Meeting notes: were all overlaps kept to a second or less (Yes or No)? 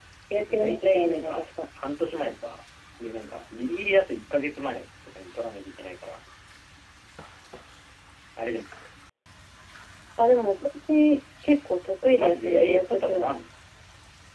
No